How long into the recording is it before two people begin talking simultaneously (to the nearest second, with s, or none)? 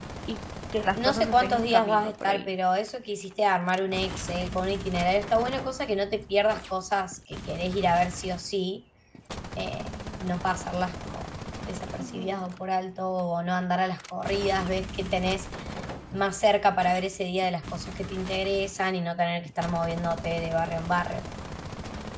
1 s